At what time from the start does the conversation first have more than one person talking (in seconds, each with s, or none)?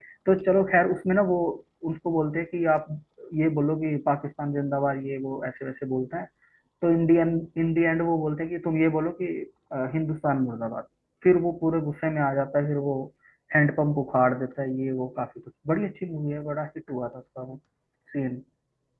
none